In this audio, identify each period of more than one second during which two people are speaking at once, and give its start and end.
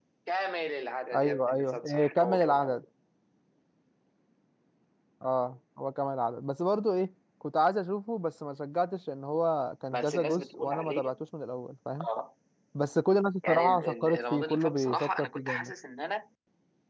1.1-2.8, 9.9-11.1, 13.5-15.7

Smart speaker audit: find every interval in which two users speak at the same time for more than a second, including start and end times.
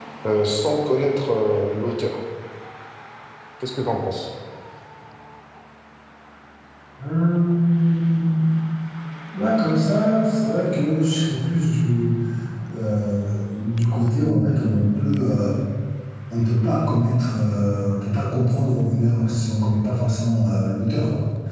none

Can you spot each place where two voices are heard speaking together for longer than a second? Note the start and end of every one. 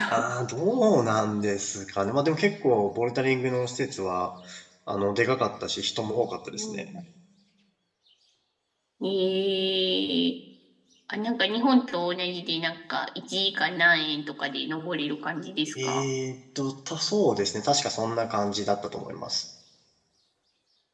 none

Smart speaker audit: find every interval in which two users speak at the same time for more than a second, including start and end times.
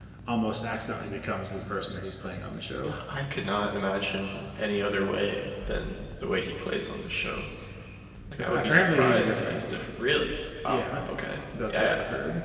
8.4-9.6

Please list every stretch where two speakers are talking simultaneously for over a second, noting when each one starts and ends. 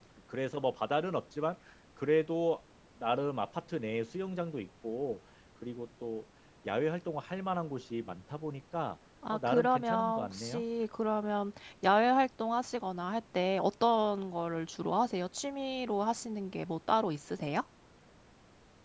9.3-10.6

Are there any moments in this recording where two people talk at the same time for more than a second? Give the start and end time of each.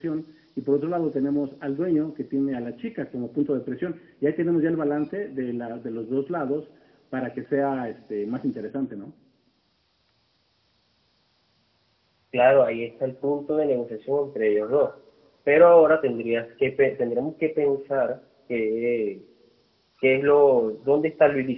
none

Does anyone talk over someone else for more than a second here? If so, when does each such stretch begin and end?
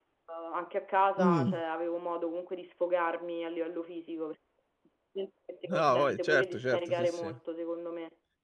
5.7-7.3

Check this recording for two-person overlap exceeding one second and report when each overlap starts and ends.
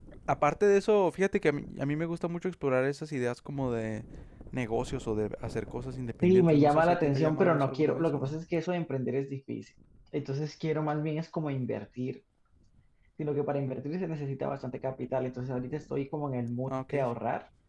6.2-8.4

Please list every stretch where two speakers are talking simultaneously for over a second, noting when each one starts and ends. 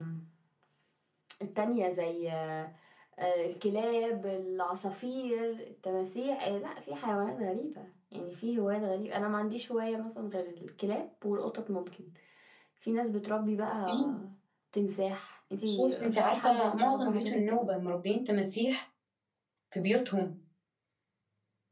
15.7-17.7

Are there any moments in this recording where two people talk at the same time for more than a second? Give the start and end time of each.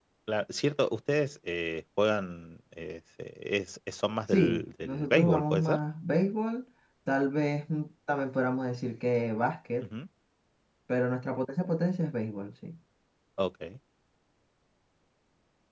4.3-5.8

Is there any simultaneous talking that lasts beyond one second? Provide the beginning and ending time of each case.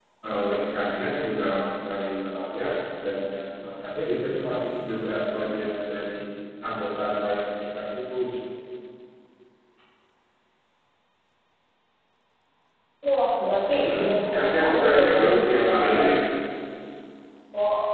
13.8-16.1

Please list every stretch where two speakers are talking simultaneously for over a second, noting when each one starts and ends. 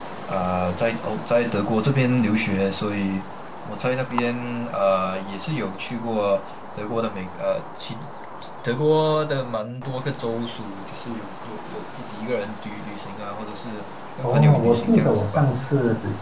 14.2-15.5

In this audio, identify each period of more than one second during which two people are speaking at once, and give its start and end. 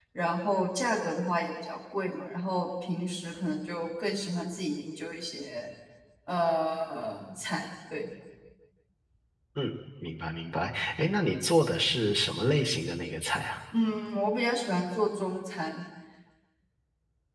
none

